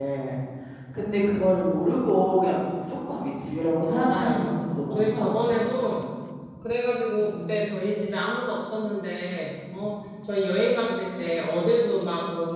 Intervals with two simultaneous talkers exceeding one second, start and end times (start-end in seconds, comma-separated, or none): 3.9-5.5